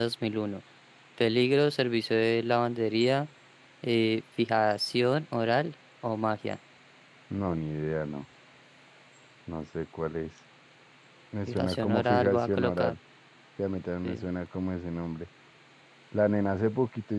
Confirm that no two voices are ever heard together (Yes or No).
No